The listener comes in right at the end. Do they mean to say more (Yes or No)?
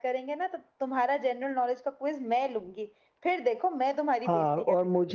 Yes